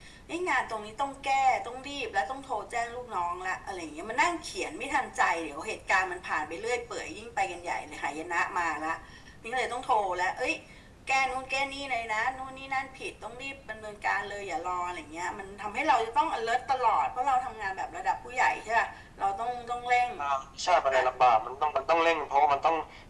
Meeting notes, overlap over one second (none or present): none